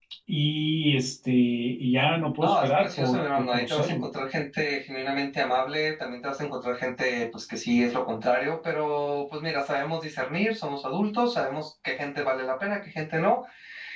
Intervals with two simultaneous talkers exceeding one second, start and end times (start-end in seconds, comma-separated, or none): 2.4-4.1